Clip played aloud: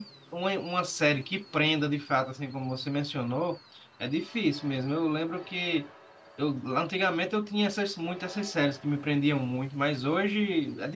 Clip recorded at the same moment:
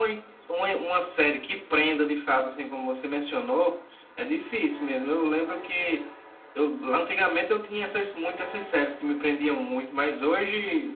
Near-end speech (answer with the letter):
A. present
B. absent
B